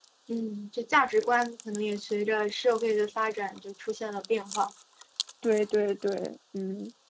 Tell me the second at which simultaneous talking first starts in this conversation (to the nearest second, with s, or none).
none